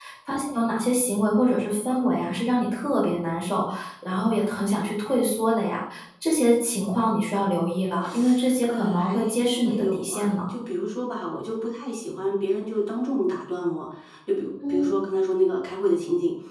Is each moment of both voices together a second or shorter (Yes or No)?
No